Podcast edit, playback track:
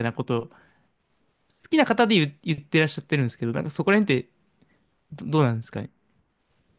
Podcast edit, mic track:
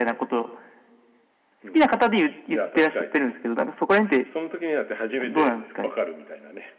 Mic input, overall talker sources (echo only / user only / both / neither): both